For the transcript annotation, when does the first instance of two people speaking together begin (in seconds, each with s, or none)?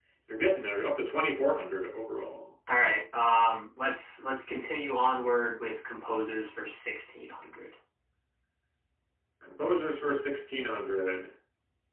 none